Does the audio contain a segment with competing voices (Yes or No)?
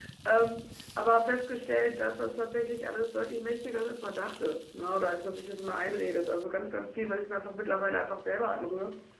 No